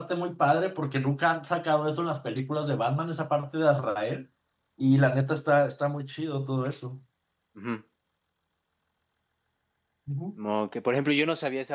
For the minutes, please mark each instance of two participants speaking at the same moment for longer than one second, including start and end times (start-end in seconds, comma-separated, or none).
none